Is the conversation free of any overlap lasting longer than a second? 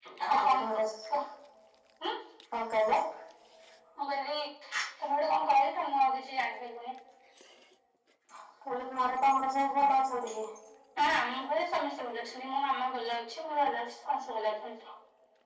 Yes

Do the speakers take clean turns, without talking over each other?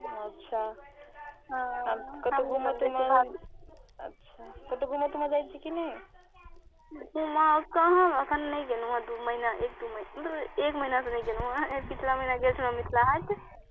No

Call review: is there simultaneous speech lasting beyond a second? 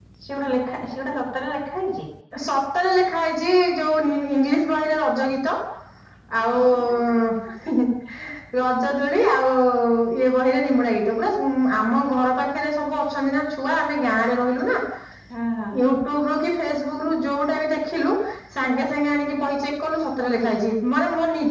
No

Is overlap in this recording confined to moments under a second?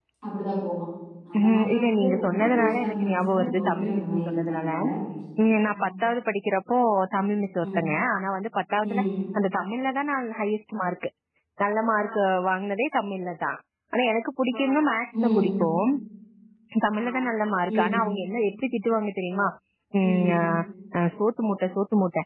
No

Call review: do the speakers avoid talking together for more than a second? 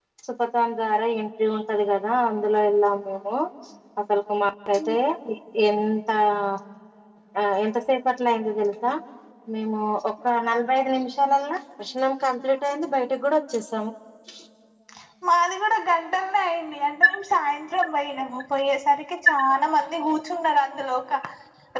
Yes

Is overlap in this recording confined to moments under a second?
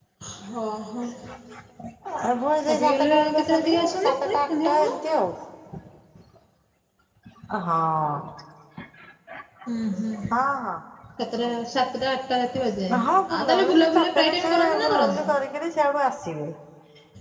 No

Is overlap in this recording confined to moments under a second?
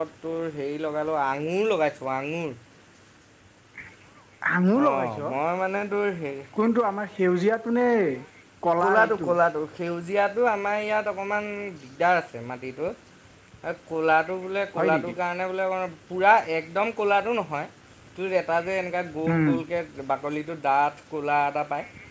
Yes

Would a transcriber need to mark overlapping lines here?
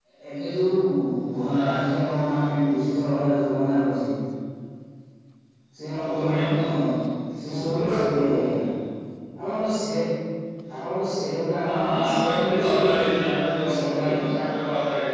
Yes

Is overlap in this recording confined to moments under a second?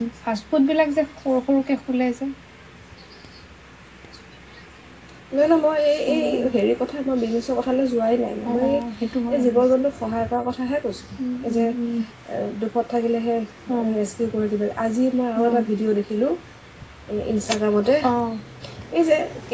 Yes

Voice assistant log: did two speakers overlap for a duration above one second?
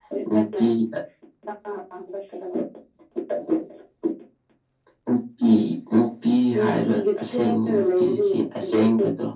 Yes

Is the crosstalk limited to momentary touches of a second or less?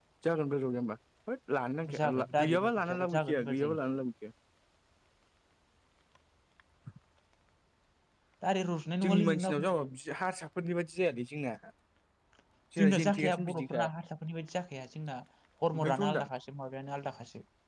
No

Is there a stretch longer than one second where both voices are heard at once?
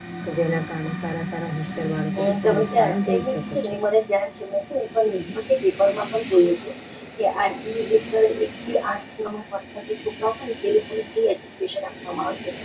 Yes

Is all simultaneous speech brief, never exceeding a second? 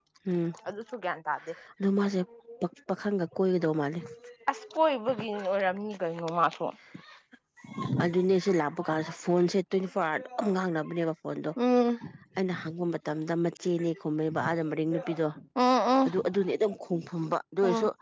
Yes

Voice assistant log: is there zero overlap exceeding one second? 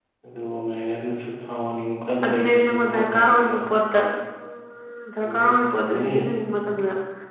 No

